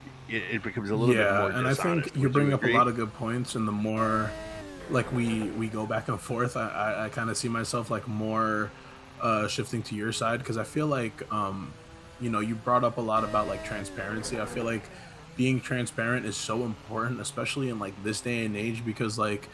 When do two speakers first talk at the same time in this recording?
1 s

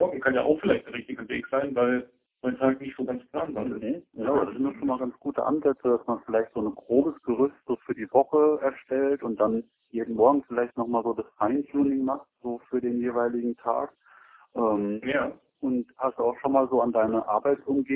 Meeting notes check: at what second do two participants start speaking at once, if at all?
4 s

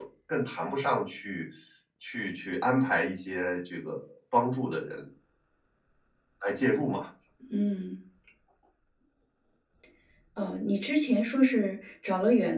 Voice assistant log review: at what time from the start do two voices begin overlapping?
none

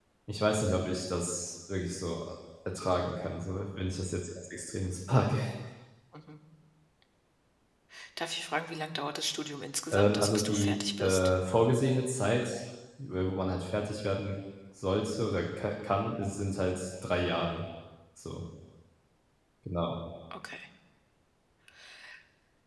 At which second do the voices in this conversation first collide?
10 s

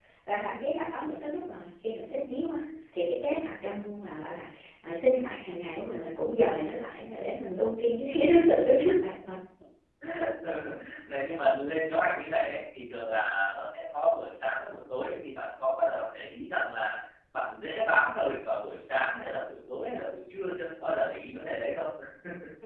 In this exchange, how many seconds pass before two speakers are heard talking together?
none

